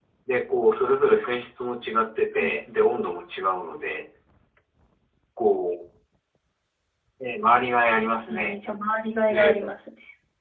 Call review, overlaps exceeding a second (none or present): none